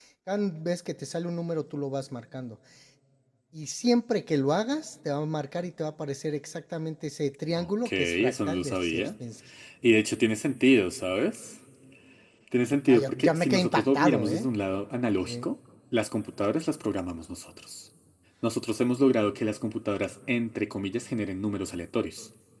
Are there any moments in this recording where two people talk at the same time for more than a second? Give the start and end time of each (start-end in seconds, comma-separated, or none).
7.6-9.1, 12.9-14.5